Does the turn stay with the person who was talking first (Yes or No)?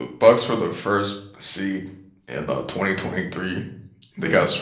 Yes